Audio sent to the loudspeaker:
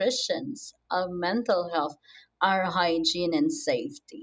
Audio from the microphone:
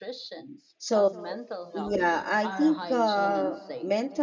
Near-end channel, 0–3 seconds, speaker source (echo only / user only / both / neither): both